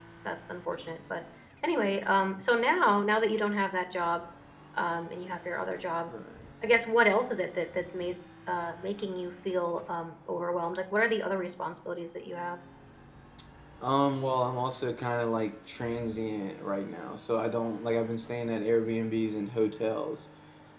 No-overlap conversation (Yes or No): Yes